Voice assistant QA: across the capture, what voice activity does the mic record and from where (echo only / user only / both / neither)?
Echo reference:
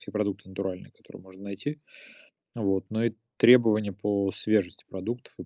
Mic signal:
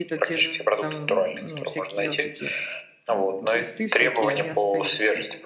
both